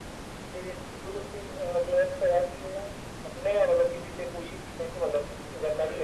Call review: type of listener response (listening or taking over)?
taking over